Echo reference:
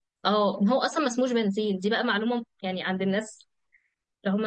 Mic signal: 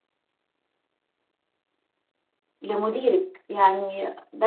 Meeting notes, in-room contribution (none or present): present